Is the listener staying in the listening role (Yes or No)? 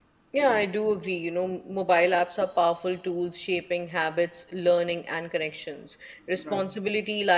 Yes